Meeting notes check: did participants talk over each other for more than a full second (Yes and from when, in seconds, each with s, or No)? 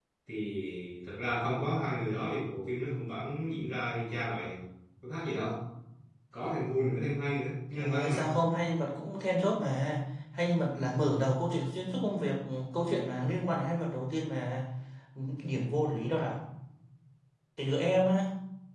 No